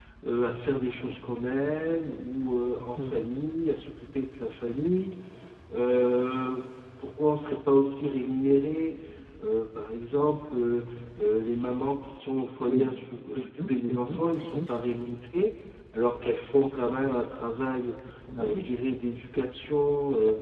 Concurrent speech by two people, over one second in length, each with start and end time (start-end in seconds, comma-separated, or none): 13.3-14.7